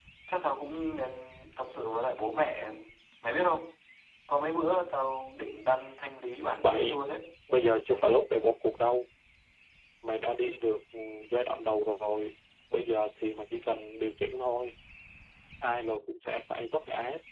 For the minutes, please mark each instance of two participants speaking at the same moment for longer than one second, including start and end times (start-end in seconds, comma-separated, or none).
none